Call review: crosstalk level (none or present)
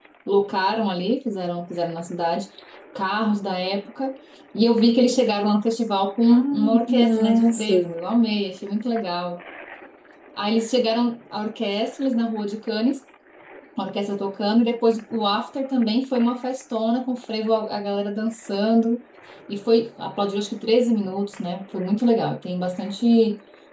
present